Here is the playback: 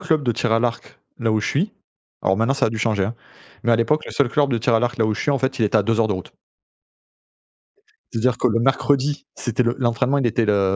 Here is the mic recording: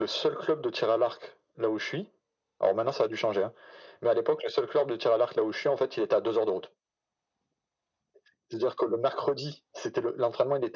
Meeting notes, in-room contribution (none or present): none